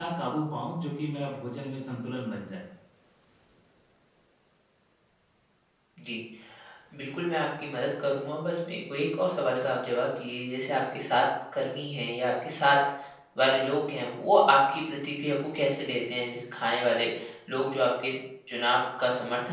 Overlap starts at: none

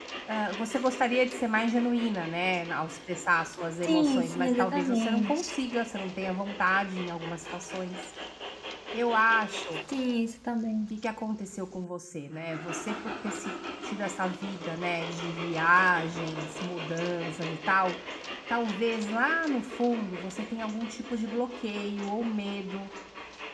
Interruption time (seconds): 3.8 s

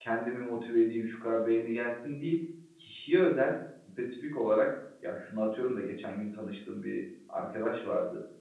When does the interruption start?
none

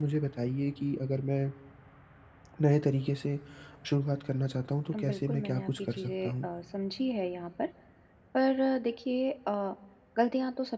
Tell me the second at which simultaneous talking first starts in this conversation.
4.9 s

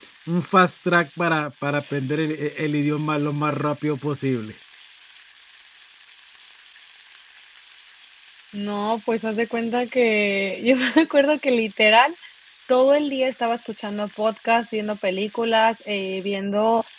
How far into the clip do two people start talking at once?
none

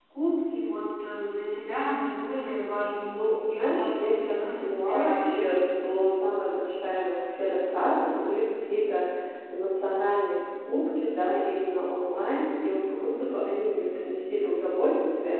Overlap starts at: 3.1 s

